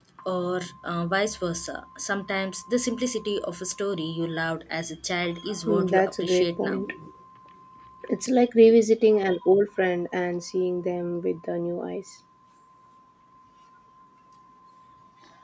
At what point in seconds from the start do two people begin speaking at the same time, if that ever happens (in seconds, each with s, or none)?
5.7 s